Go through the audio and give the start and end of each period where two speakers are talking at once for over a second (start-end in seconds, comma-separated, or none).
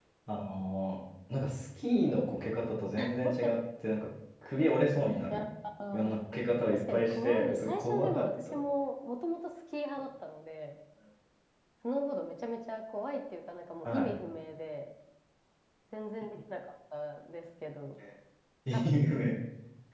6.7-8.6